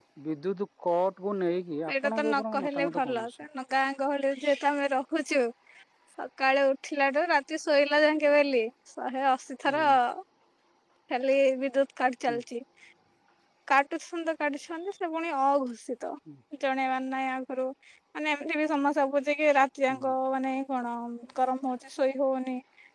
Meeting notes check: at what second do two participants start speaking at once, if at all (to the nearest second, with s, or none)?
2 s